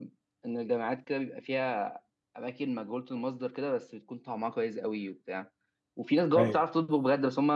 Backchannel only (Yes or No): Yes